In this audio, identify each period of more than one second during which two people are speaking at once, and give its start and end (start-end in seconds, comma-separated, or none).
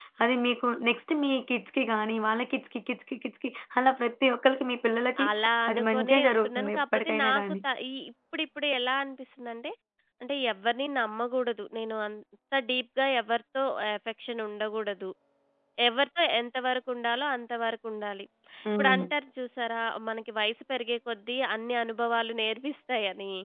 5.7-7.4